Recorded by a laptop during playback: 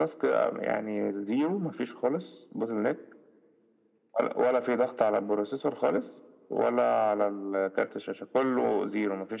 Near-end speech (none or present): none